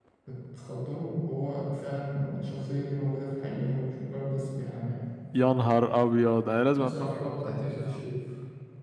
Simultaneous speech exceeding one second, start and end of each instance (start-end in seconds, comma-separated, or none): 6.8-8.1